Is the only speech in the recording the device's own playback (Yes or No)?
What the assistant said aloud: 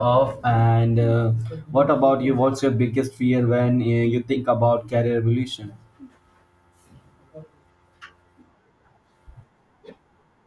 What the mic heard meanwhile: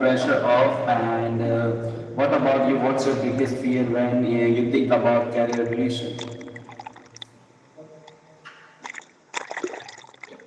Yes